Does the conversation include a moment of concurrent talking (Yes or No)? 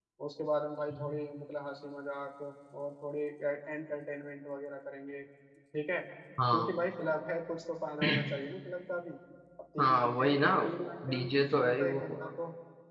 Yes